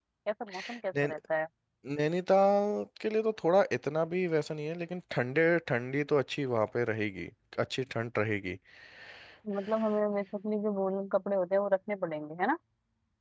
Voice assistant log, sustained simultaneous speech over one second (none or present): none